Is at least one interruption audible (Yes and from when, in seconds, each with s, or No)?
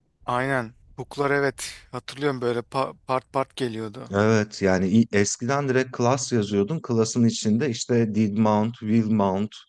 No